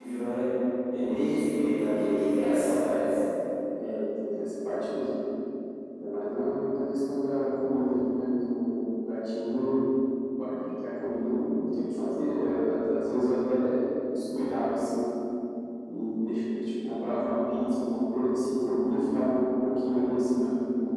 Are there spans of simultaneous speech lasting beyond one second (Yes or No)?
No